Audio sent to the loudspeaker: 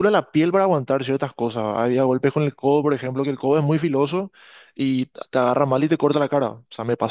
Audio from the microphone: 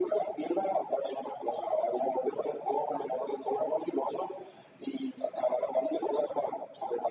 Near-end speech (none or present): none